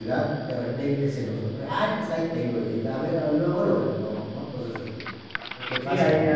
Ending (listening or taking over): taking over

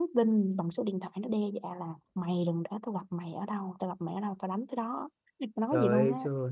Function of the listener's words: taking over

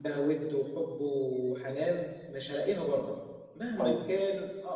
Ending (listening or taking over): listening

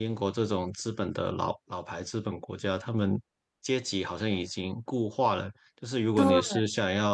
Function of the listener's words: listening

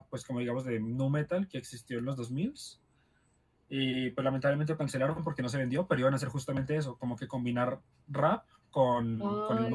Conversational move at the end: taking over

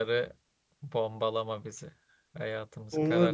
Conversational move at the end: taking over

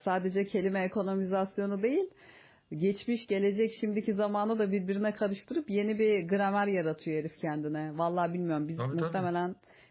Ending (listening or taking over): listening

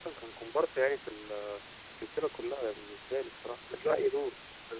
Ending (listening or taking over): taking over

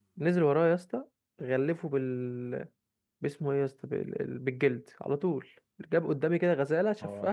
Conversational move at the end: listening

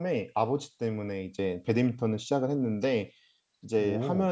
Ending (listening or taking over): listening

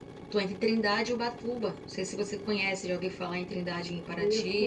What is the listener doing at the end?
taking over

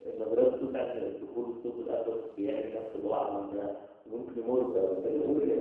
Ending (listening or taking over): taking over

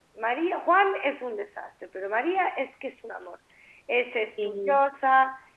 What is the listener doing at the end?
listening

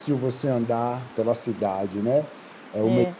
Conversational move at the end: listening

